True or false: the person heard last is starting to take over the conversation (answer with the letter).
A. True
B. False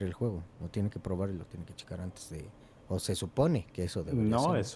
A